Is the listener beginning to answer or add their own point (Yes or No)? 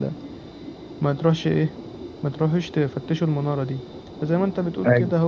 No